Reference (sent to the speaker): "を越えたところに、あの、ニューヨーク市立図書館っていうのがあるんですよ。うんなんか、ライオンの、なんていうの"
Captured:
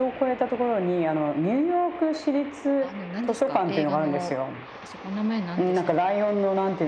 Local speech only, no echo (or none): あの、何ですか映画の、あそこ名前何ですか